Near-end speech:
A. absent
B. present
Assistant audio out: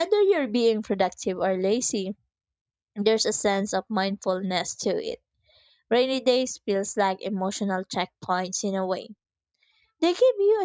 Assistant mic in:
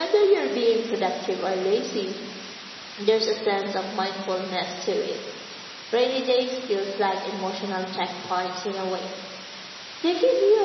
A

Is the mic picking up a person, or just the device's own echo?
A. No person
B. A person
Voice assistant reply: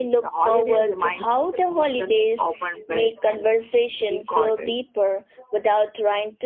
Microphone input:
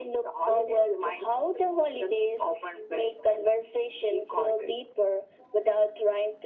A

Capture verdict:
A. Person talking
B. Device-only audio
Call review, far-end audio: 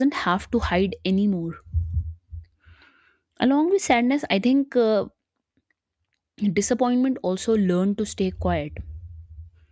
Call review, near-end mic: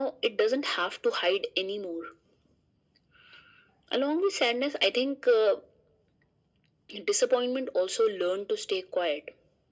B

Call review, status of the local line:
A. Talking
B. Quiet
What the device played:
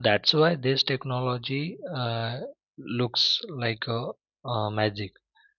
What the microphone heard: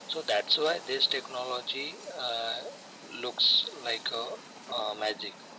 B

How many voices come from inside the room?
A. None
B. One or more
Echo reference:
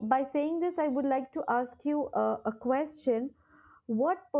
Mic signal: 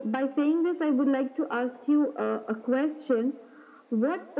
A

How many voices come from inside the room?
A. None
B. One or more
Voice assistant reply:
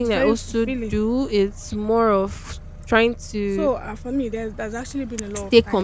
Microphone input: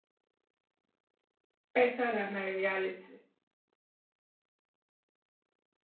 B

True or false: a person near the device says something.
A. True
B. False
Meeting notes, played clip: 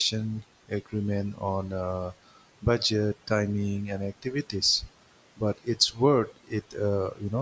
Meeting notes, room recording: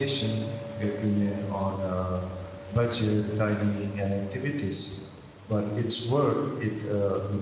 B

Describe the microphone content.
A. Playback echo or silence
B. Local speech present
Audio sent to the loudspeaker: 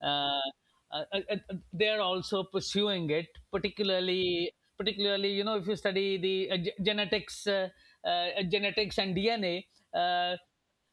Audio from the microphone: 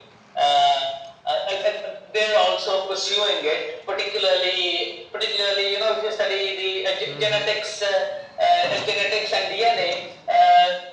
B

